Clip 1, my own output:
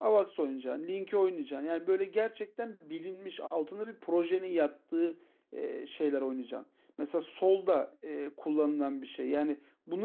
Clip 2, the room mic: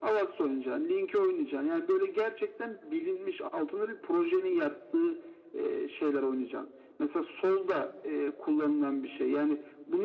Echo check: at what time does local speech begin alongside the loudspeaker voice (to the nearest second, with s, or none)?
none